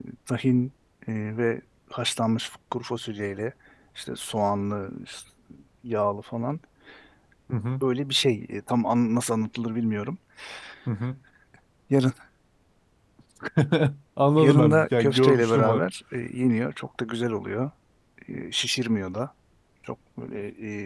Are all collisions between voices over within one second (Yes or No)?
No